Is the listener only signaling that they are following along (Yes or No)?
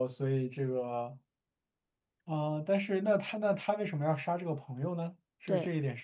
No